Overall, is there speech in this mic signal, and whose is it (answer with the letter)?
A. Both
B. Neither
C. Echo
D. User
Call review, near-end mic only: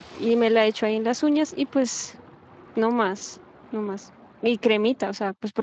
D